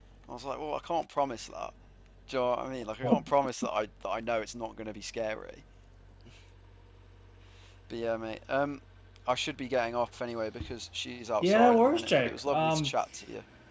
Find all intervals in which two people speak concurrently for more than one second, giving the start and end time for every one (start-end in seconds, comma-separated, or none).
11.4-12.9